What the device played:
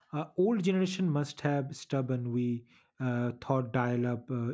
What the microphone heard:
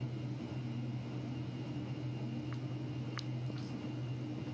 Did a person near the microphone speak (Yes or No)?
No